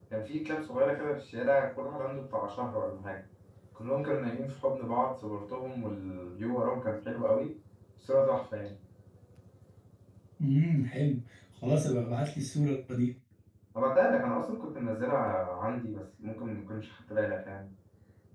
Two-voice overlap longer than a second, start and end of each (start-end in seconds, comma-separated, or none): none